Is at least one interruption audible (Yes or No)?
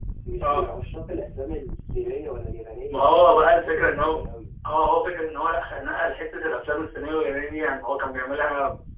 Yes